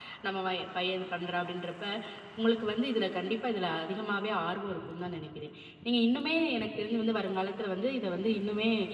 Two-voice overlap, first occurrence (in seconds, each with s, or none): none